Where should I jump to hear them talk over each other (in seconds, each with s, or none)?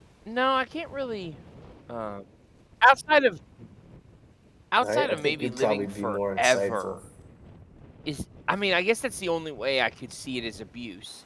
4.8 s